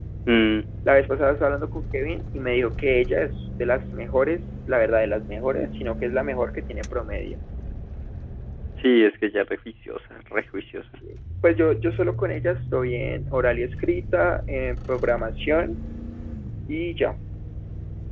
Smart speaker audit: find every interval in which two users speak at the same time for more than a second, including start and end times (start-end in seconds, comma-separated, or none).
none